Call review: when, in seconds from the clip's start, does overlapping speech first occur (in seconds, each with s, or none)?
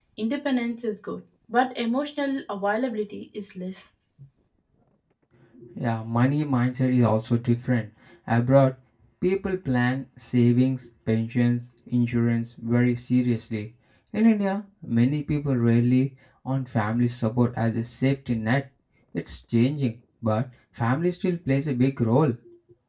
none